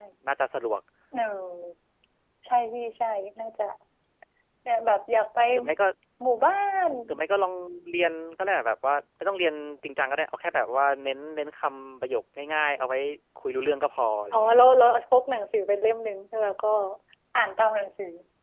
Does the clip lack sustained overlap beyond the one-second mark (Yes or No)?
Yes